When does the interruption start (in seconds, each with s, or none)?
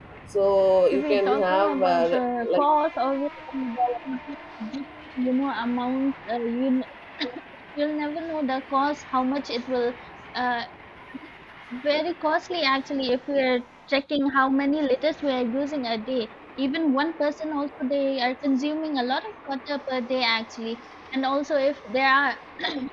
0.9 s